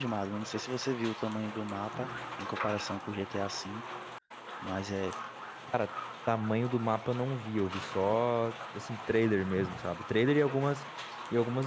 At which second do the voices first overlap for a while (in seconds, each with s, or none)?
none